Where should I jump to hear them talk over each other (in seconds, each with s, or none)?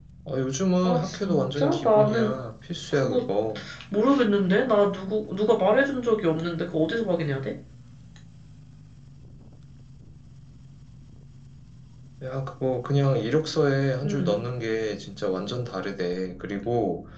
0.8 s